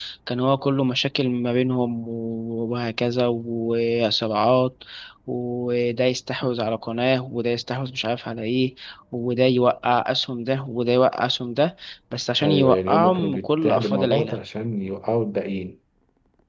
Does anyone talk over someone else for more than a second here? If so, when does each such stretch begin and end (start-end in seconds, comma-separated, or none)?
12.4-14.4